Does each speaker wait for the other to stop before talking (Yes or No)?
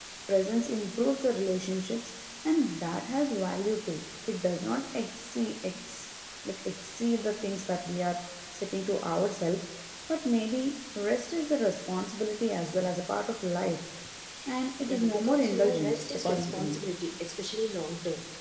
No